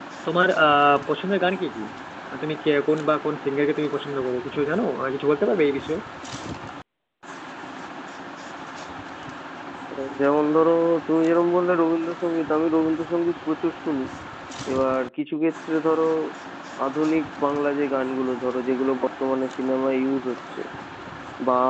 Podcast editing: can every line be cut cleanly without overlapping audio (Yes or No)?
Yes